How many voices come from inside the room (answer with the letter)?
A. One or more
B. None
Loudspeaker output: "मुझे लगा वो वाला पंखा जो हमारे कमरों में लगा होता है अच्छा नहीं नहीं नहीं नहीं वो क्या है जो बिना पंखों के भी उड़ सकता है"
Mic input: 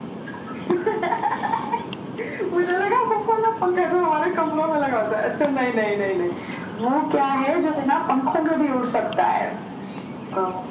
B